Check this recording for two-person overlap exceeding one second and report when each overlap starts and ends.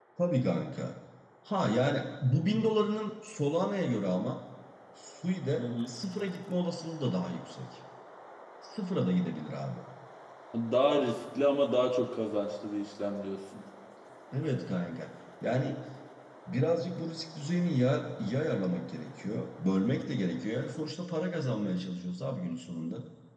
none

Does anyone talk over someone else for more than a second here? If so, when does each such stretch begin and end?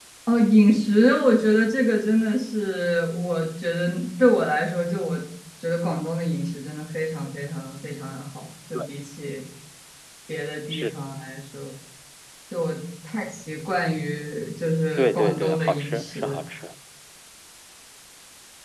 15.0-16.4

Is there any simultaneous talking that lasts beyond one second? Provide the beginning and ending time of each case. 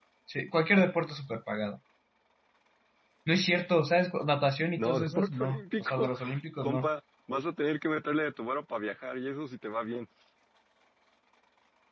4.8-6.1

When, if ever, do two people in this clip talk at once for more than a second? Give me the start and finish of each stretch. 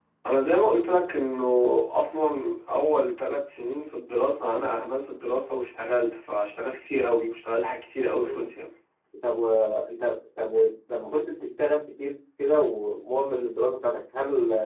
none

